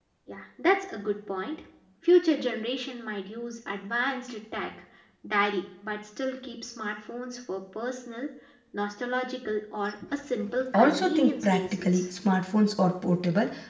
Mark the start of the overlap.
10.7 s

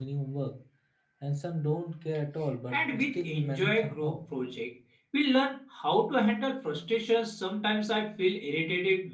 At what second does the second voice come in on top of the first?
2.7 s

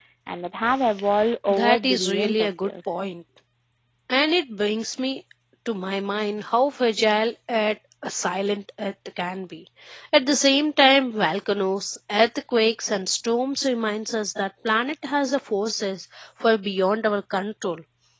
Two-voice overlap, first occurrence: 1.5 s

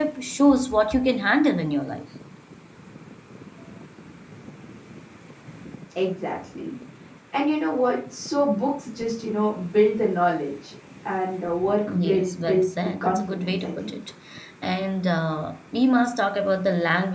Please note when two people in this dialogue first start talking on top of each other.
11.9 s

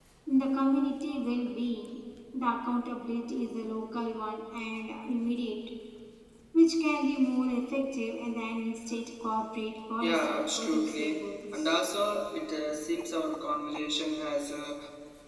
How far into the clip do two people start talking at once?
10.0 s

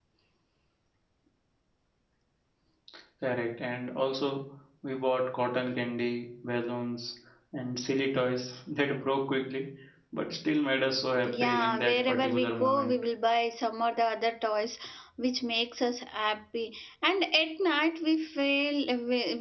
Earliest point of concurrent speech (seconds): 11.2 s

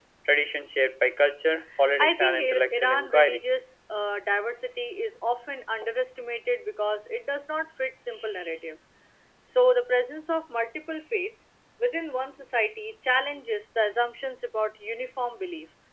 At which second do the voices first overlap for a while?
2.0 s

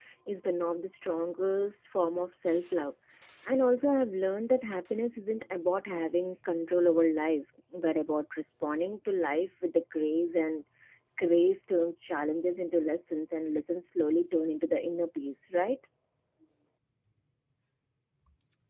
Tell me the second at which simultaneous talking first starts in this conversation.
none

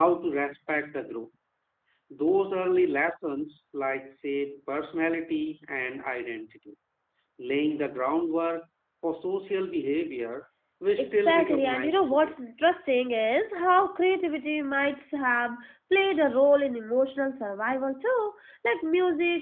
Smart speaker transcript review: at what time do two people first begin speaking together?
11.0 s

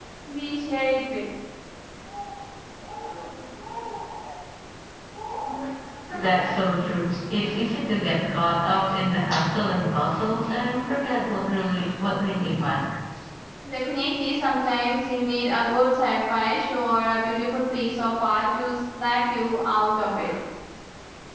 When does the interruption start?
none

